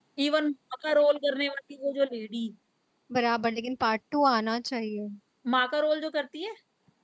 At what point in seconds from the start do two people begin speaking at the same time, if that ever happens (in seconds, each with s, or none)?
none